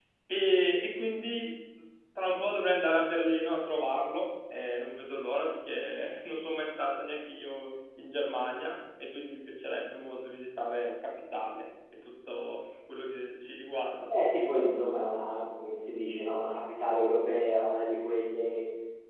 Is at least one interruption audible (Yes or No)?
No